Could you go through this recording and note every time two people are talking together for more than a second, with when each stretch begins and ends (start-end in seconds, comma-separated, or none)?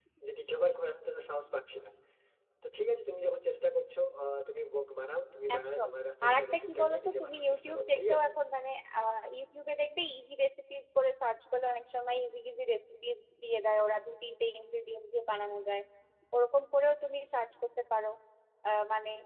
6.3-8.3